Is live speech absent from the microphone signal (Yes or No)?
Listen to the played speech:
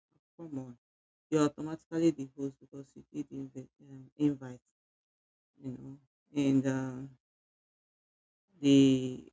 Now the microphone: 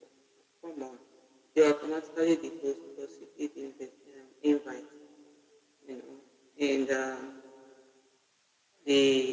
Yes